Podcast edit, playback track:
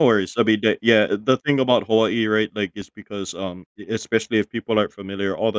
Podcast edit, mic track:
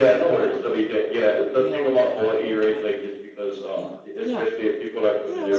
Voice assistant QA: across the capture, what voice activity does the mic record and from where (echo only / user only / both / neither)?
both